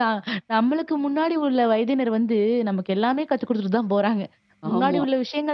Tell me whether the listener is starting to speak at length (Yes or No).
No